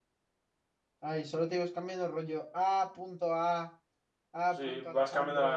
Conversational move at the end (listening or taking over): taking over